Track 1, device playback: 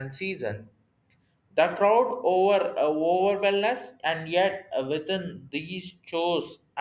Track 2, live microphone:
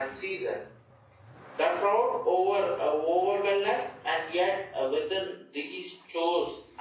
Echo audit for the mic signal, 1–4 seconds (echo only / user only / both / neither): echo only